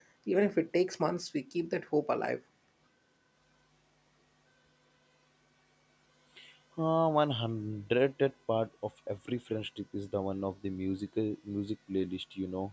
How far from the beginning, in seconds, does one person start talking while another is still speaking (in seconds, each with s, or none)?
none